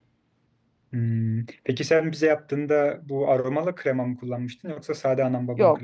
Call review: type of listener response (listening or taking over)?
taking over